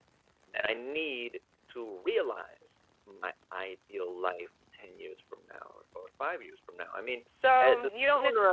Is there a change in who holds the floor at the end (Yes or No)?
Yes